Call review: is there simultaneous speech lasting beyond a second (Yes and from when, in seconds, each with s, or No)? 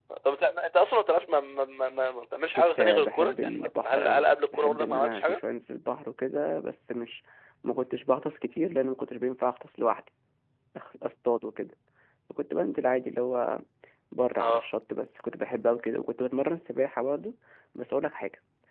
Yes, from 2.6 s